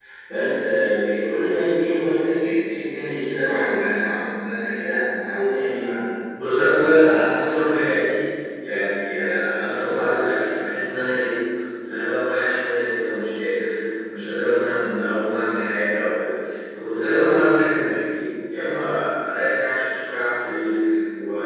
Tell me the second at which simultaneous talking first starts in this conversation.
none

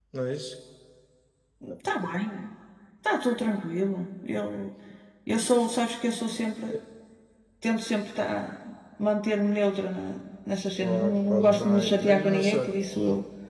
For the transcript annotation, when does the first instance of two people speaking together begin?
11 s

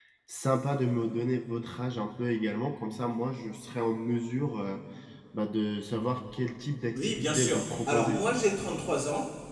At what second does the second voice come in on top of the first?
7 s

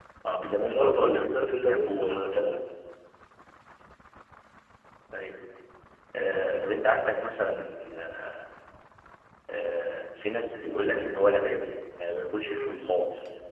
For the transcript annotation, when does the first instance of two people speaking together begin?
1 s

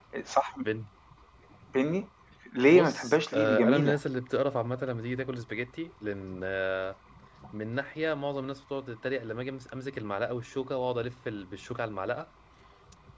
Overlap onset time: 3 s

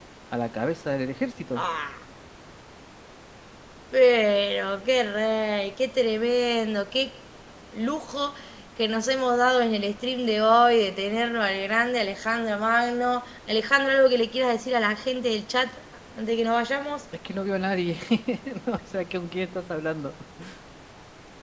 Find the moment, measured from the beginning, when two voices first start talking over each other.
none

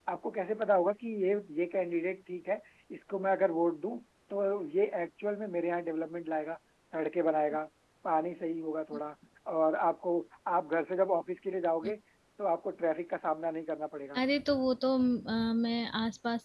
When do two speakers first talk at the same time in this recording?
none

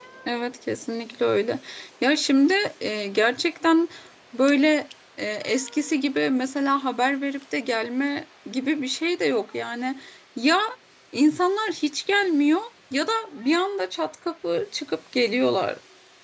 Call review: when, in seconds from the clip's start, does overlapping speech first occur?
none

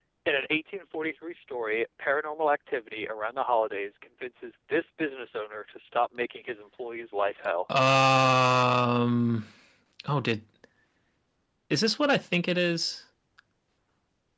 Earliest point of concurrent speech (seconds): none

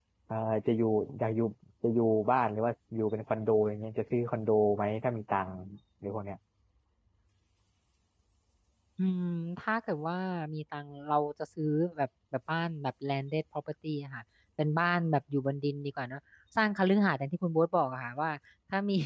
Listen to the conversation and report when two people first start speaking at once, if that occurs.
none

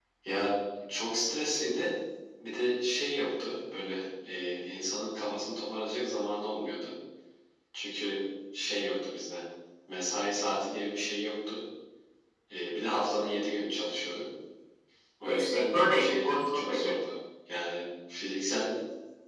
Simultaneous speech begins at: 15 s

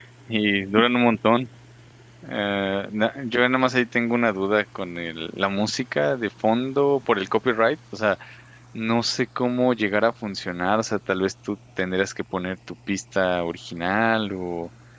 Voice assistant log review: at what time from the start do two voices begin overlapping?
none

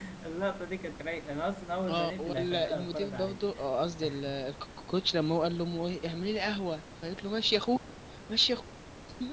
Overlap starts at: 2 s

